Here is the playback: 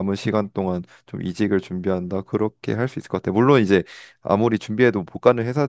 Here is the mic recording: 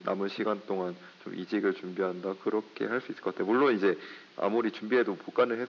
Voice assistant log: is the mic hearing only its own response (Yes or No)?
Yes